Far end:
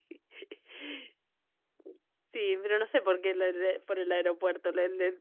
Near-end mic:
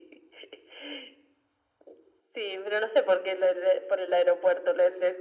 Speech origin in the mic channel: echo only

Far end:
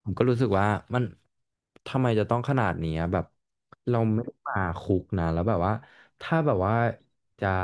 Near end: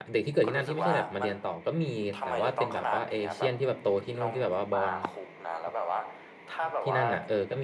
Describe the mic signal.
both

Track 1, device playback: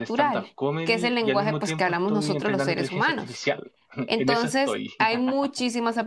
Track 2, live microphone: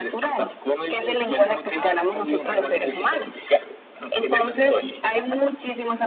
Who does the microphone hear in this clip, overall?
both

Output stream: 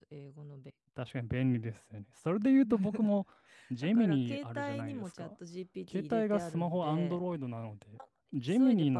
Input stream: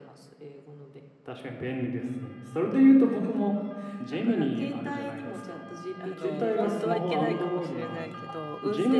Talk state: both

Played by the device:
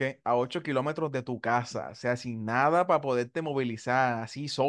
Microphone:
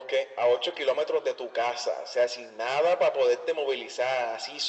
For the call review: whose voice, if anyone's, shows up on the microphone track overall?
echo only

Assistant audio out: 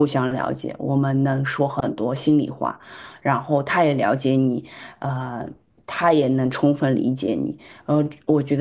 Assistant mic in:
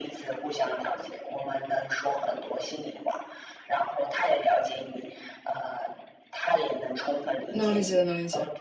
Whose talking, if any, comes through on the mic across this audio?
both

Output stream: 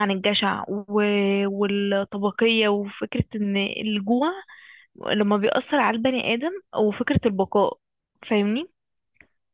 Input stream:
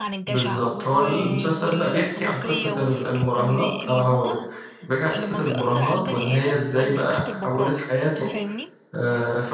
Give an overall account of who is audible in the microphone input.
both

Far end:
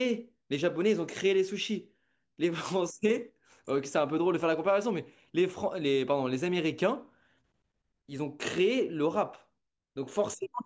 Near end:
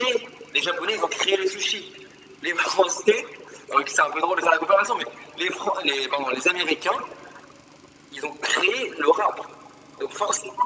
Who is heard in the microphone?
echo only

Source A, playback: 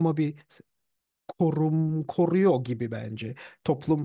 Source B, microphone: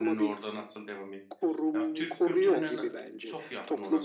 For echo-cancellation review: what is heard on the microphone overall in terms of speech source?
both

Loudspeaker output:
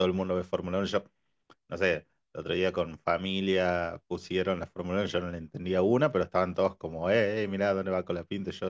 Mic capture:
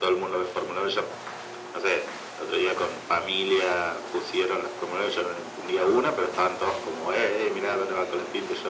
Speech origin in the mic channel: echo only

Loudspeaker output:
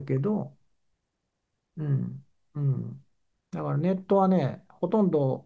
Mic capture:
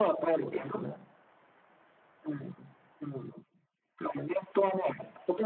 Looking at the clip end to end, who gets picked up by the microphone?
both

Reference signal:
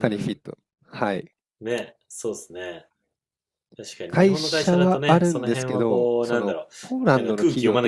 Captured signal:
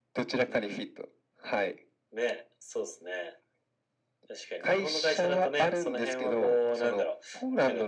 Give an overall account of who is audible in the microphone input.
echo only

